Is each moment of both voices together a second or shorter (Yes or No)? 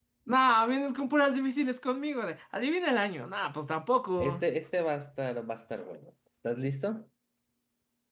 Yes